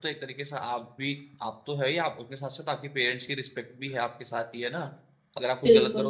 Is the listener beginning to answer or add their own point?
No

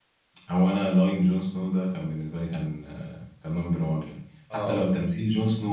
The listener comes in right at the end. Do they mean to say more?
No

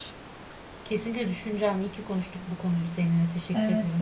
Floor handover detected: Yes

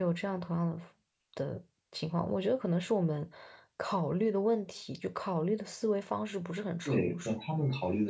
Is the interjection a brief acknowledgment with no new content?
No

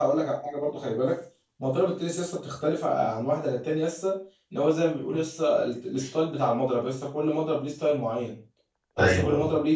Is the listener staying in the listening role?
Yes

